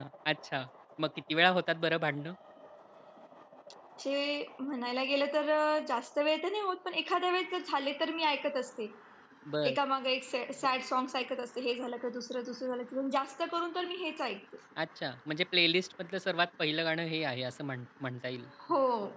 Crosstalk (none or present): none